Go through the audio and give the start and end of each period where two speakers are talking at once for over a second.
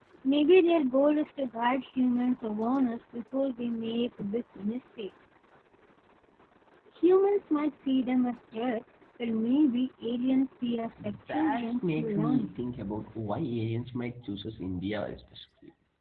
11.3-12.5

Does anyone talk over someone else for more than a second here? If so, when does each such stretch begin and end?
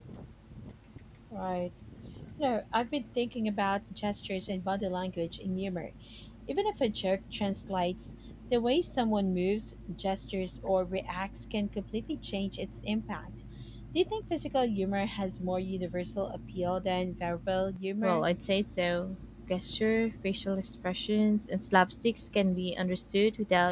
none

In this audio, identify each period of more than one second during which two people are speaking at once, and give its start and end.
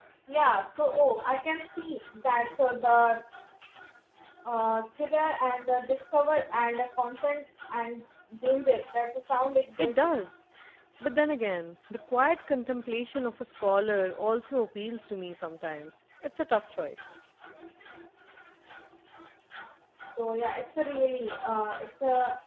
none

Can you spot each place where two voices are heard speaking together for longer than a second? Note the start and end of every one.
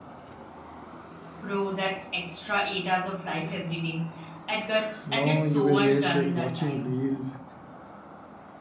5.0-6.9

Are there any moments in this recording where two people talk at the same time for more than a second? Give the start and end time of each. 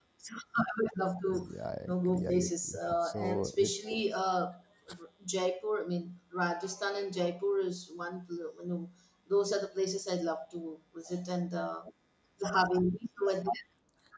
1.8-4.0

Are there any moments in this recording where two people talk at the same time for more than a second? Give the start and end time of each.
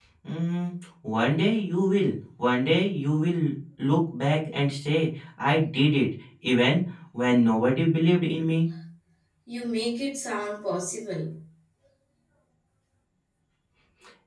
none

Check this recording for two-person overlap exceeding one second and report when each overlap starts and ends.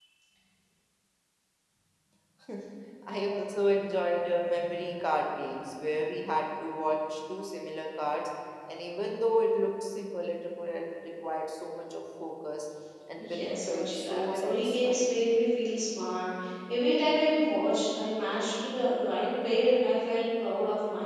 13.2-15.0

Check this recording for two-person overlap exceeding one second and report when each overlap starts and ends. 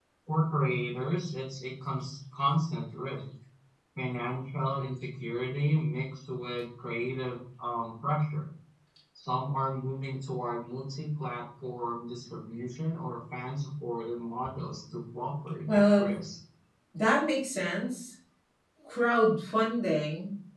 none

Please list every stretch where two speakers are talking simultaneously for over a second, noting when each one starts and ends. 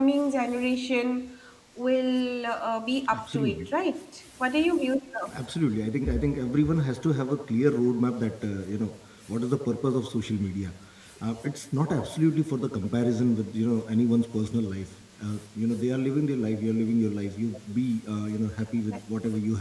none

